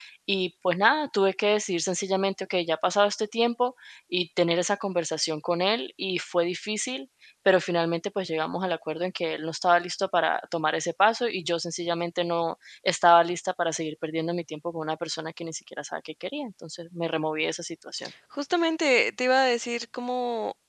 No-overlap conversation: Yes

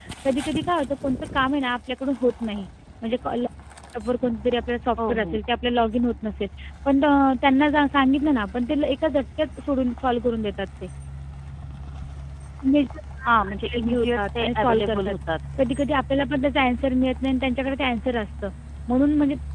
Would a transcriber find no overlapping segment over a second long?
No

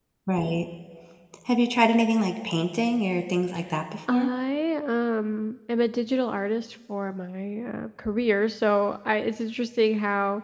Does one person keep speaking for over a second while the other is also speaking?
No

